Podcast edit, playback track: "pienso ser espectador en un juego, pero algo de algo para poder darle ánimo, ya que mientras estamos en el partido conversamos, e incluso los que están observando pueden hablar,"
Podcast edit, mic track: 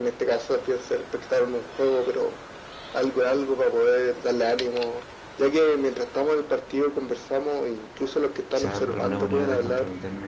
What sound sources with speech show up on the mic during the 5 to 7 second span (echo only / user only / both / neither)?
echo only